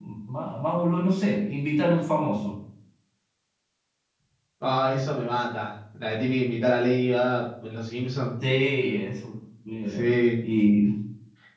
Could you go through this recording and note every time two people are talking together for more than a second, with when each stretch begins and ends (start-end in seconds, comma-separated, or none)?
none